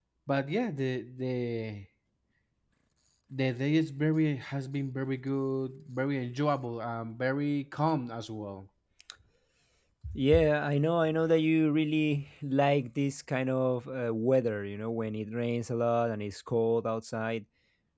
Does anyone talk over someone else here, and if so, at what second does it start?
none

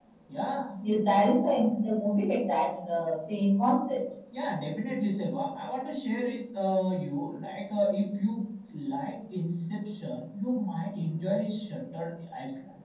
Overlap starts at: none

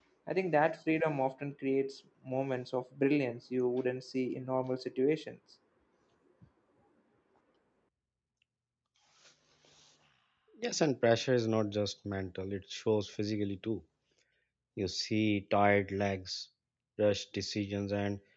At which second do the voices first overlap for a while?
none

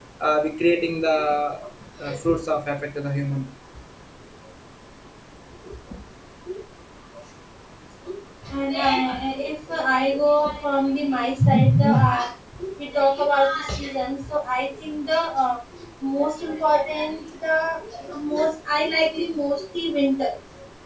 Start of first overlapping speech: none

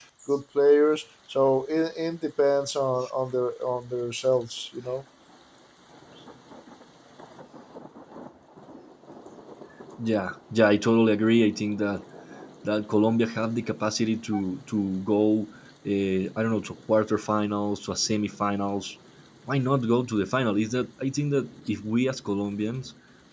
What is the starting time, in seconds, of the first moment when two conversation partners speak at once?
none

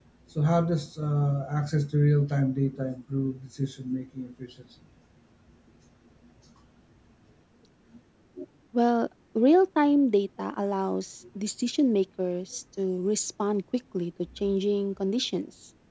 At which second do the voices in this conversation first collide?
none

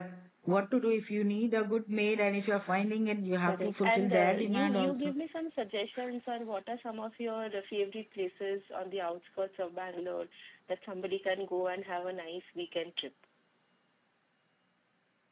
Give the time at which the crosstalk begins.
3.4 s

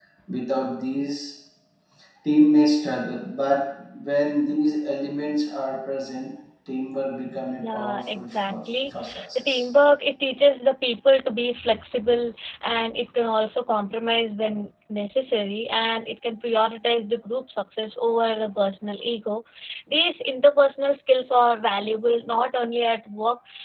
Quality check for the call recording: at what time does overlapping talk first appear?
7.6 s

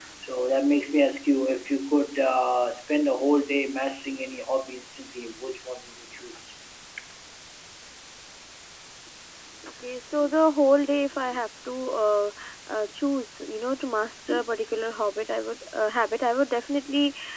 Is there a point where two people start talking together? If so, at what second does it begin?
none

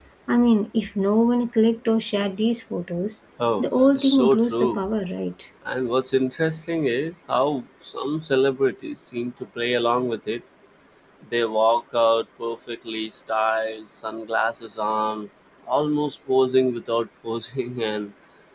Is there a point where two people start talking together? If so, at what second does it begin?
3.6 s

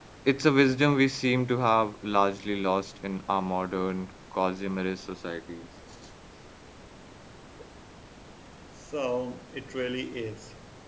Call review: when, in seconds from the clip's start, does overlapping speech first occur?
none

